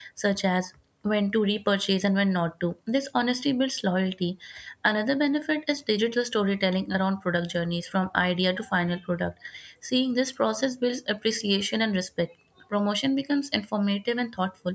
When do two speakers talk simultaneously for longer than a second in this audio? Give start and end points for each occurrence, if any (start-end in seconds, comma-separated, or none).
none